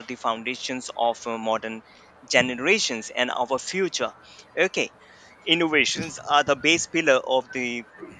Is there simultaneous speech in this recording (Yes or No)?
No